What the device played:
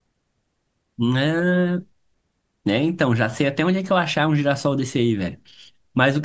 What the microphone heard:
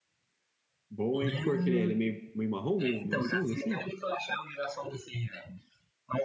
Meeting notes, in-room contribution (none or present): present